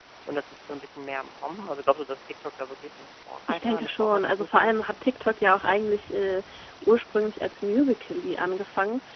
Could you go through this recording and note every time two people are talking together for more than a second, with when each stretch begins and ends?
3.5-4.7

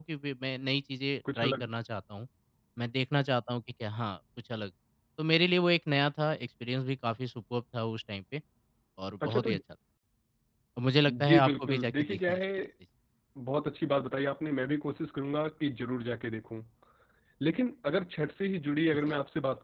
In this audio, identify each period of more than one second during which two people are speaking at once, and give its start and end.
11.1-12.4

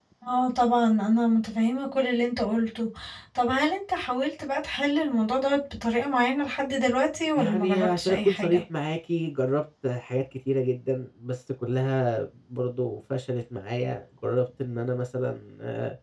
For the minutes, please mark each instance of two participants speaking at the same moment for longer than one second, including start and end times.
7.4-8.6

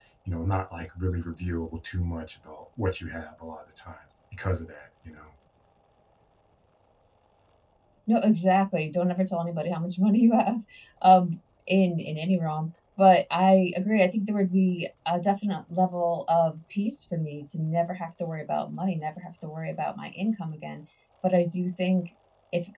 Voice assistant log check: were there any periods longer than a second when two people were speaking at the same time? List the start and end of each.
none

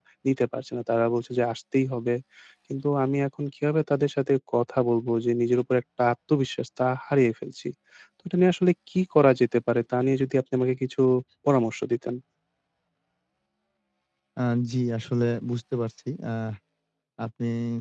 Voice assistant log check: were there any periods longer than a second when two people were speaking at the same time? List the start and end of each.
none

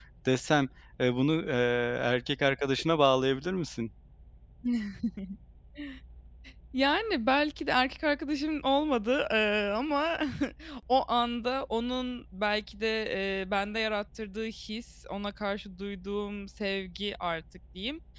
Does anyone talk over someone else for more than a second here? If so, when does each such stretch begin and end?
none

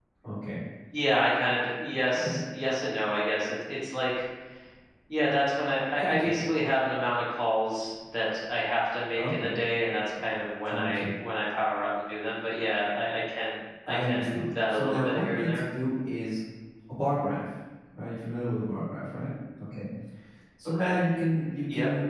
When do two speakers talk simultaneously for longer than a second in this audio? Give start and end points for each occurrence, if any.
13.9-15.6

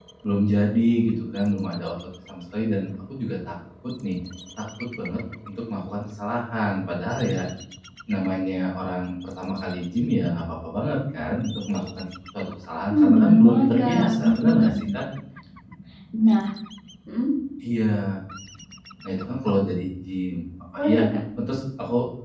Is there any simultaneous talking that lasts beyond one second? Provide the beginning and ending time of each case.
12.9-14.7

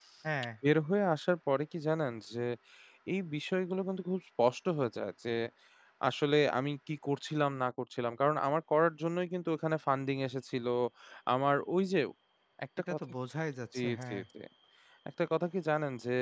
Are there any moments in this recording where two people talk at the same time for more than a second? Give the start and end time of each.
none

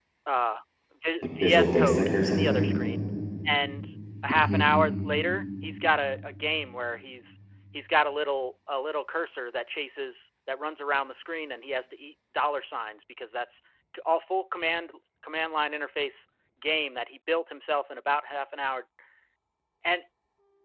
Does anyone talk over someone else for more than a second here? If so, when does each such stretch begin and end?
1.2-2.7

